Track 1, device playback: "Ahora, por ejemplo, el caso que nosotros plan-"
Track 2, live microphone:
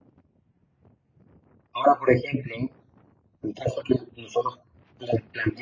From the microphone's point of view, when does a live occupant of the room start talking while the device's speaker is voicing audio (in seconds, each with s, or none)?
none